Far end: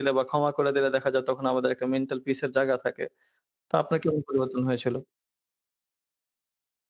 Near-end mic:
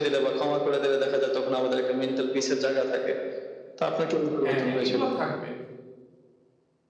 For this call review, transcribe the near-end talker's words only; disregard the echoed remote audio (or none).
হ্যাঁ, হ্যাঁ এগুলো থাকবে।